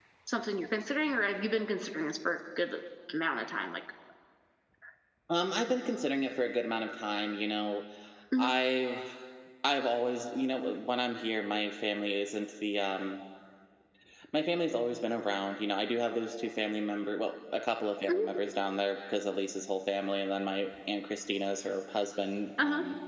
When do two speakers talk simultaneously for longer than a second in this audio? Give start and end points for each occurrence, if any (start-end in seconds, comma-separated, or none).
none